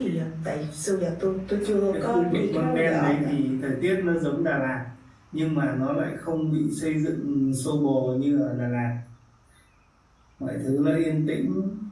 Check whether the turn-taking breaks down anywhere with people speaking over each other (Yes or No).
Yes